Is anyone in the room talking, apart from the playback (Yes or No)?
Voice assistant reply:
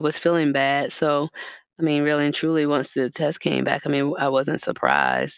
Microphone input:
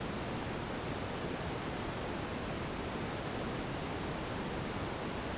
No